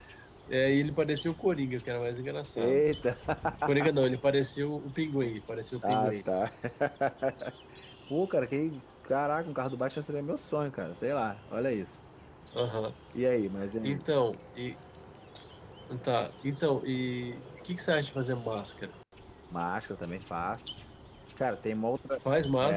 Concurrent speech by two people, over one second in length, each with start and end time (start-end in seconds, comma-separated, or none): none